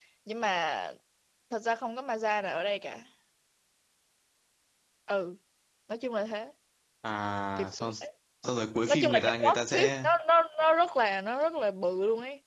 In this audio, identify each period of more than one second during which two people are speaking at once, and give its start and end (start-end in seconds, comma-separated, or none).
8.9-10.1